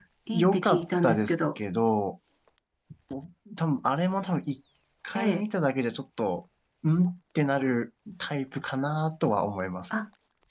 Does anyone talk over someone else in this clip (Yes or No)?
Yes